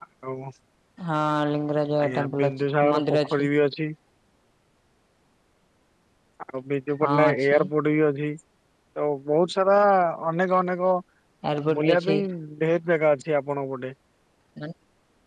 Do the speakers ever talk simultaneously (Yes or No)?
Yes